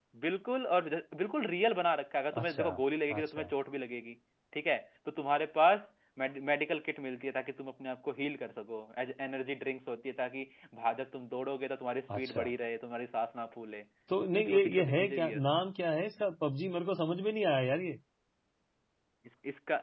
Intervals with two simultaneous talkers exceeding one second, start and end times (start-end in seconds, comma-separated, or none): 14.3-15.7